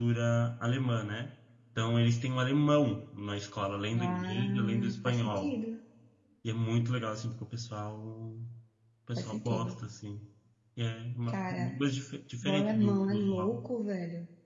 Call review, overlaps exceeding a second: present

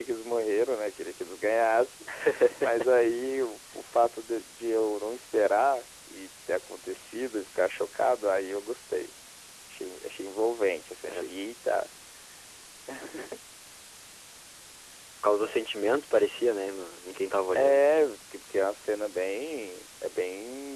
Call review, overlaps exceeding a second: none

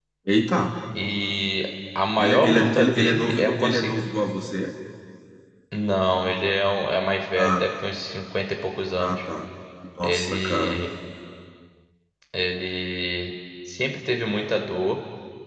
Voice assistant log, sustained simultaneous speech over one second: present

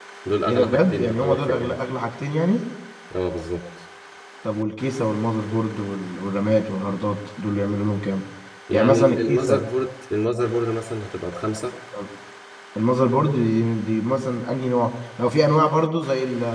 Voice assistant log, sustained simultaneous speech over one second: present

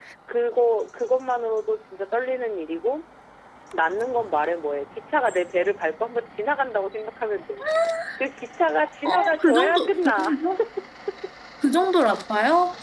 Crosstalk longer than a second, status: present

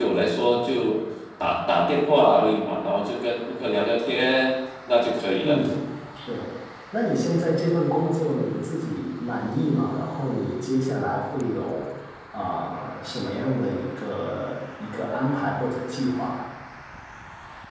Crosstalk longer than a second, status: none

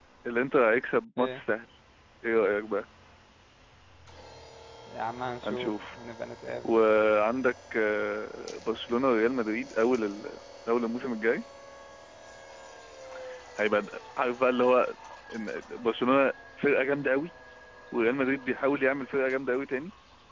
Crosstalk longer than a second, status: none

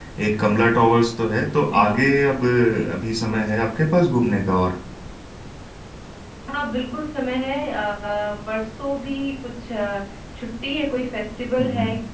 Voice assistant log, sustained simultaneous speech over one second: none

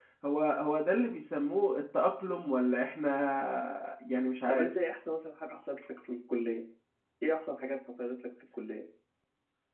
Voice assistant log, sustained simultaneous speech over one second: none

